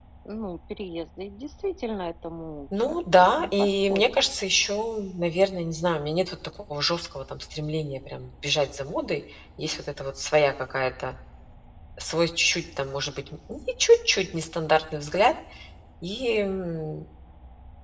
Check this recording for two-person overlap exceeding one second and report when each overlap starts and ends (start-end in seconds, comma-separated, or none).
2.8-4.3